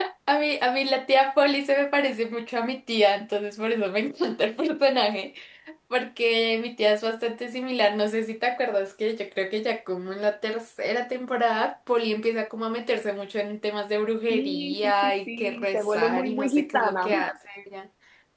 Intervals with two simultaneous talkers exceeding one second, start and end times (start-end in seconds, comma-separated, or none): 14.3-17.2